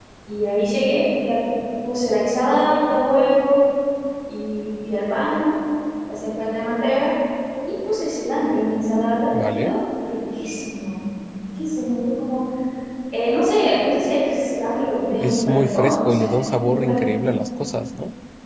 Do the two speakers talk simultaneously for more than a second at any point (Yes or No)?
Yes